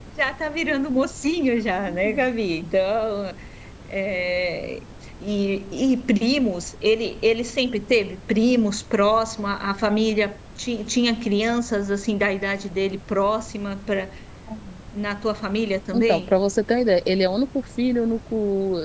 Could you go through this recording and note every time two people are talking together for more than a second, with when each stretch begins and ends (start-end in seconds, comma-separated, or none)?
none